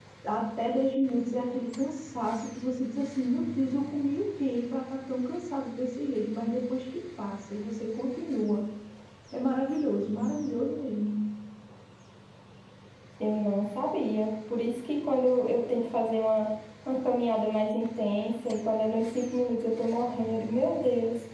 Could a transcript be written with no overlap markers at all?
Yes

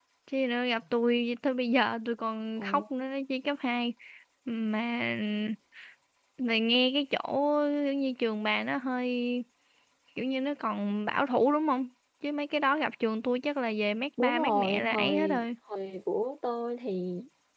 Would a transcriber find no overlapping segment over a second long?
No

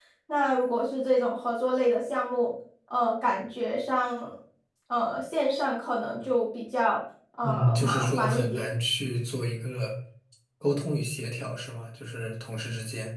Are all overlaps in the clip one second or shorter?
No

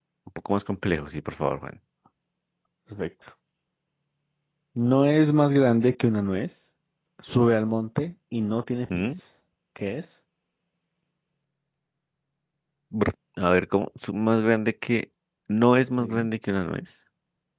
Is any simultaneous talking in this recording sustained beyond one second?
No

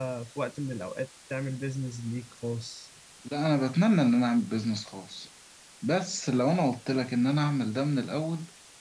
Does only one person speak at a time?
Yes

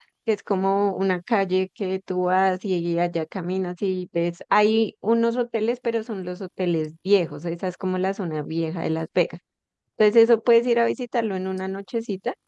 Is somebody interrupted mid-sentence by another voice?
No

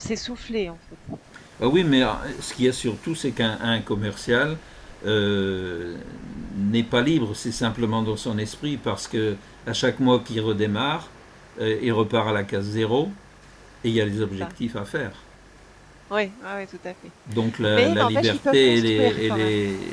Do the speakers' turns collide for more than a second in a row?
Yes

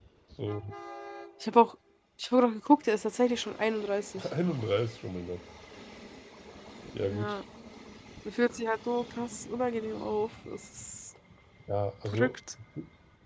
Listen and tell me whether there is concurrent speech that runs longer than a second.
No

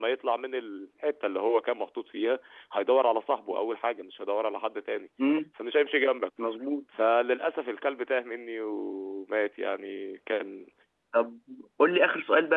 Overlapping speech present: No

